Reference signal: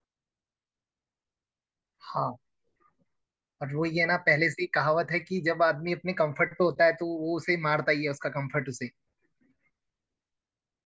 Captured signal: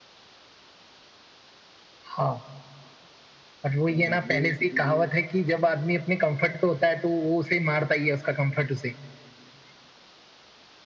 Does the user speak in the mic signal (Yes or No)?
Yes